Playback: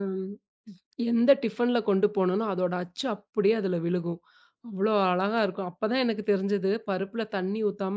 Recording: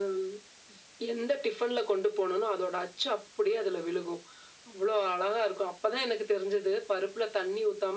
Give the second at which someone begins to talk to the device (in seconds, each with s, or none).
none